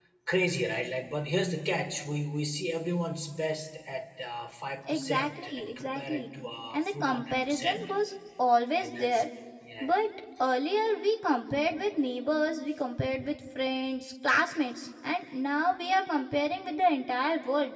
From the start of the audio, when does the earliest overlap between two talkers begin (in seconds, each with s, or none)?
4.9 s